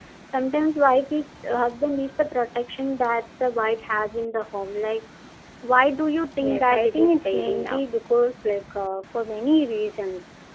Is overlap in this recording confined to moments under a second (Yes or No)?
No